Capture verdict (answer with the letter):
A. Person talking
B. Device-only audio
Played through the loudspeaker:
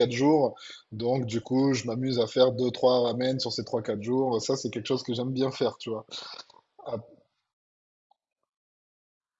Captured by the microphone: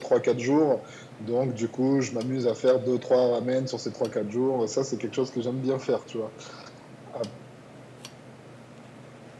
B